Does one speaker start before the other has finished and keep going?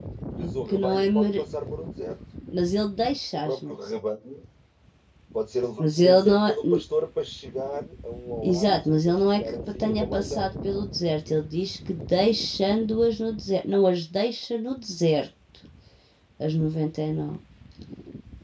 Yes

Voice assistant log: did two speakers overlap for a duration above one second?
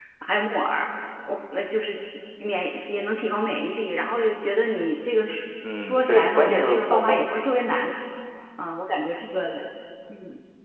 Yes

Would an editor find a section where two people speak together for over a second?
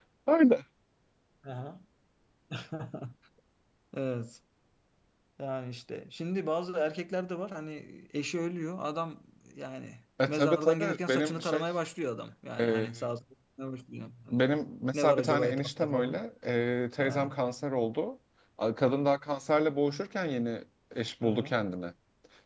Yes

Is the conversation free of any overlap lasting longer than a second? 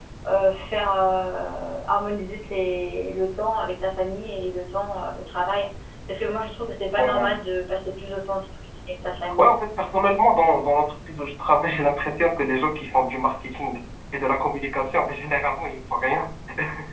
Yes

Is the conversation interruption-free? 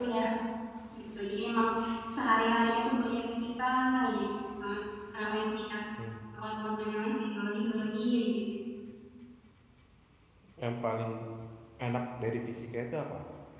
Yes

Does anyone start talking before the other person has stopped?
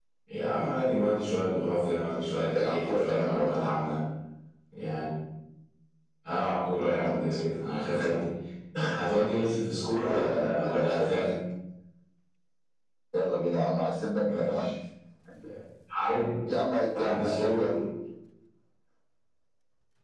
Yes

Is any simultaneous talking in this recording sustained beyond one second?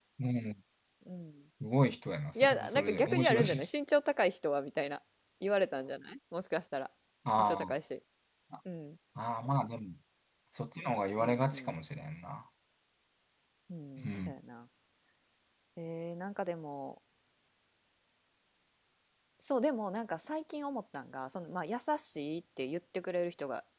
Yes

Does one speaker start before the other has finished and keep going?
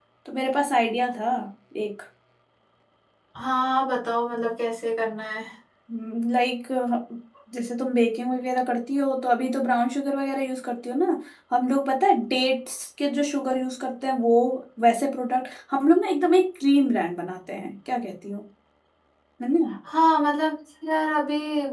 No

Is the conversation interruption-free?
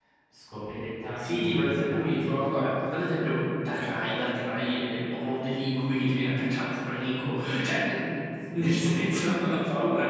No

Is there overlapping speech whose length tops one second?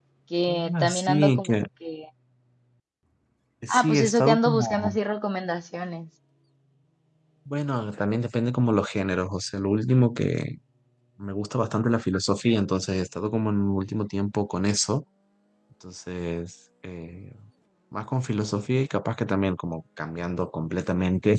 Yes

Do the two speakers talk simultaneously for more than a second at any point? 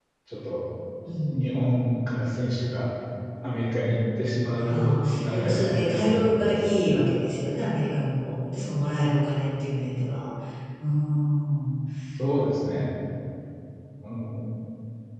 Yes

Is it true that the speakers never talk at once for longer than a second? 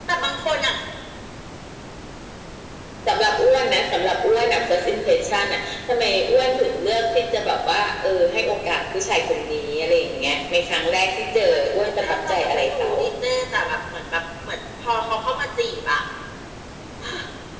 No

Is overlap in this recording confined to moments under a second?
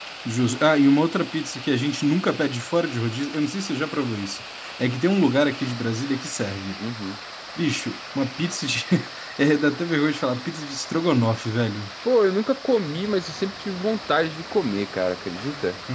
Yes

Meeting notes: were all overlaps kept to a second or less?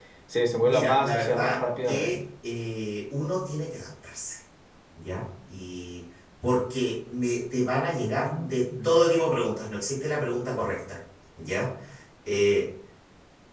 No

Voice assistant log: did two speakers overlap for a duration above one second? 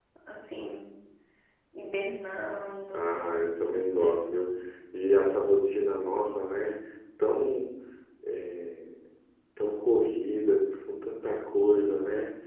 No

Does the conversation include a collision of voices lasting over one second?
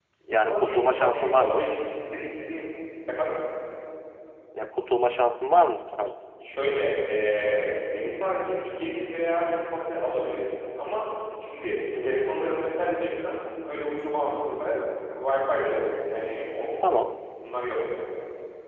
Yes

